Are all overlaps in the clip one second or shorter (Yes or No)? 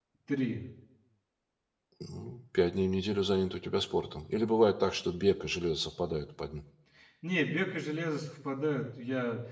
Yes